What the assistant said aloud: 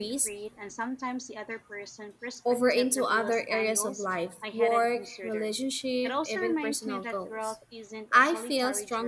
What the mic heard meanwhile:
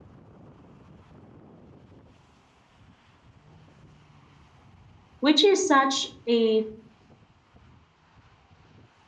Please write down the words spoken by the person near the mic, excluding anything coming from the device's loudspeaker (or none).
which is such a